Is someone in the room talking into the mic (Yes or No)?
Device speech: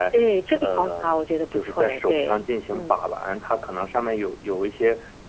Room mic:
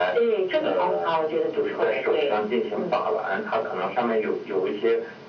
No